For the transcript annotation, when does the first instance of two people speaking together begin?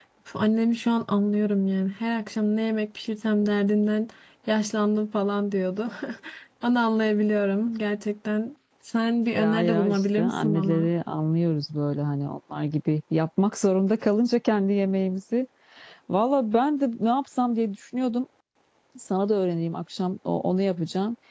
9.3 s

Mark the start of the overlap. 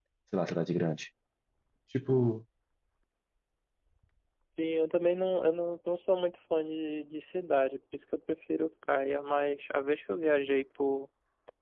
none

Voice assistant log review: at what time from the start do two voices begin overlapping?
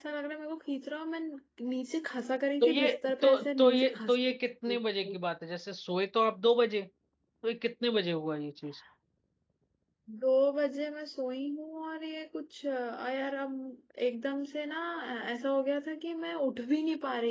2.6 s

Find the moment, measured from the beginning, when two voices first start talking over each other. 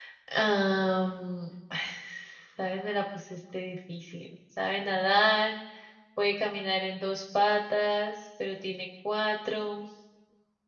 none

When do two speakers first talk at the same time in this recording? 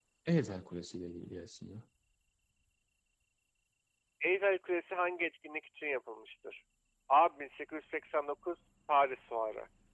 none

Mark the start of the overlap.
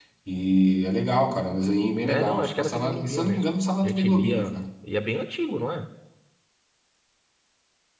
2.0 s

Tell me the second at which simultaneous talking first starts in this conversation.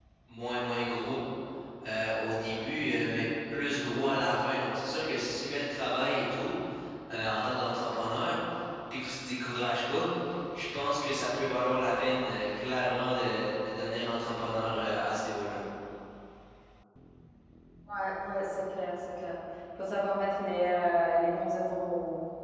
none

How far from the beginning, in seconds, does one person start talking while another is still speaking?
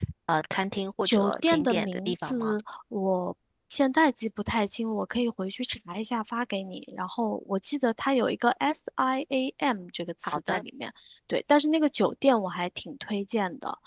1.1 s

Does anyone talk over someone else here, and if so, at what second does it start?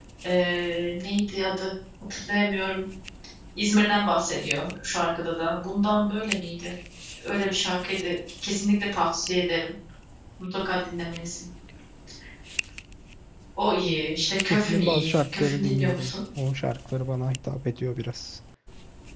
14.4 s

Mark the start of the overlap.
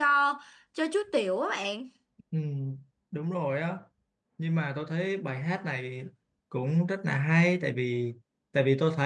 none

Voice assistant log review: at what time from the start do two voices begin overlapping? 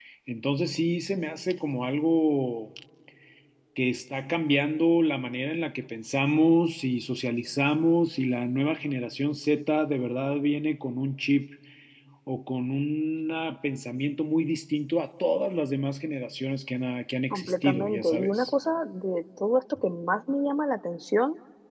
17.3 s

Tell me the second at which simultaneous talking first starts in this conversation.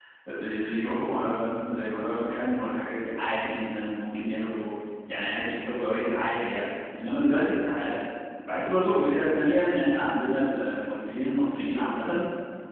none

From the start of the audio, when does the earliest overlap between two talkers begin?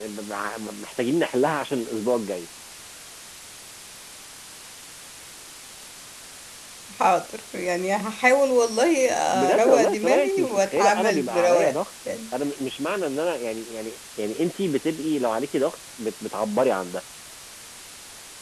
9.5 s

